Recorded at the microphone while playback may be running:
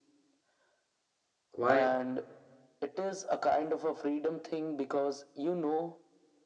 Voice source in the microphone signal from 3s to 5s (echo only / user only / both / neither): echo only